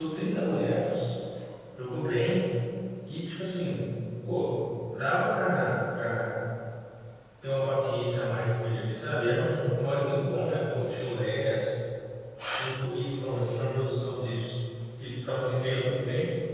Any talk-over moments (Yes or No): No